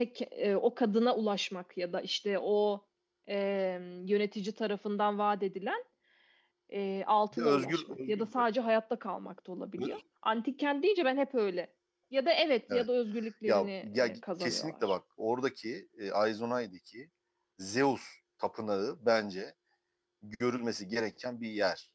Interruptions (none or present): present